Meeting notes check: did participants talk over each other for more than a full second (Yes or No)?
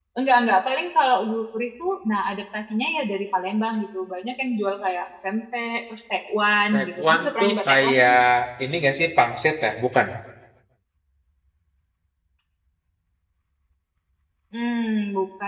Yes